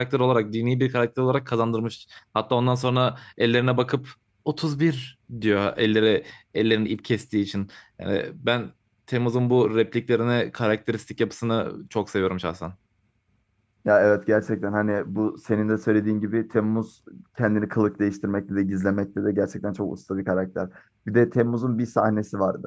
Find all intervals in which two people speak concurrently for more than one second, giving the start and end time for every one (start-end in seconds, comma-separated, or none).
none